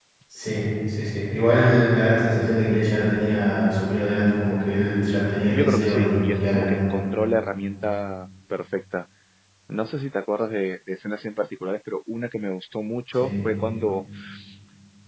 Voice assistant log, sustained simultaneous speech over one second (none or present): present